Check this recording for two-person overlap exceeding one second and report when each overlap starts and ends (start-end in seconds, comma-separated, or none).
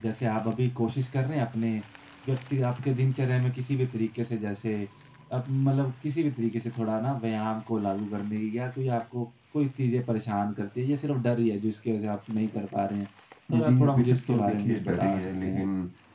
13.5-15.6